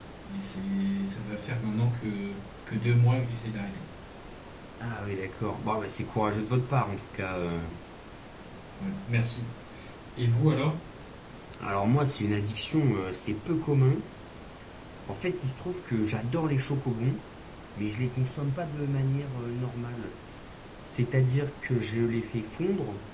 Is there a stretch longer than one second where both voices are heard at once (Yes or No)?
No